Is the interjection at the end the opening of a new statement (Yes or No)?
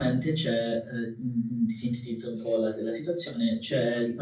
No